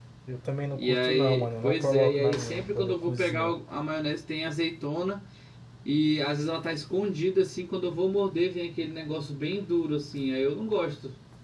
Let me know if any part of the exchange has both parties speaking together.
Yes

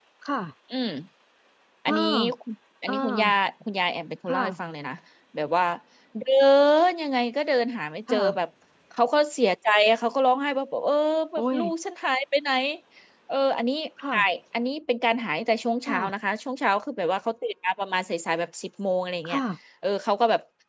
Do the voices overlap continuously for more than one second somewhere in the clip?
No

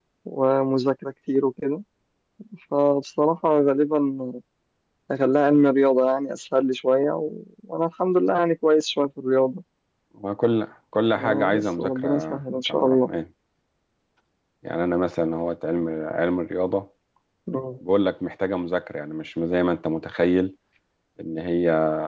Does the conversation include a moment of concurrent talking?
Yes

